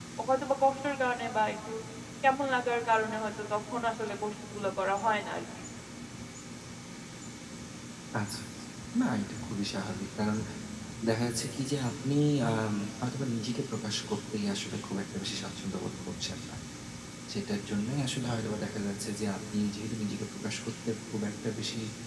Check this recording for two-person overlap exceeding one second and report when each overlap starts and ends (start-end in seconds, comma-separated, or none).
none